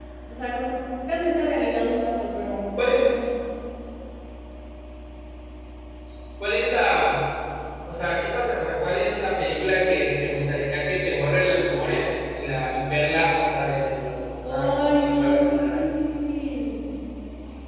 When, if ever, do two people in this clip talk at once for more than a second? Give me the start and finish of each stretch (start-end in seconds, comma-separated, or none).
14.4-15.8